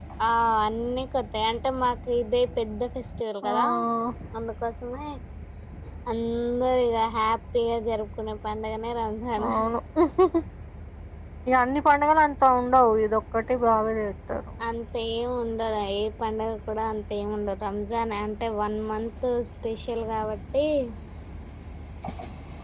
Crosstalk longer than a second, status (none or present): none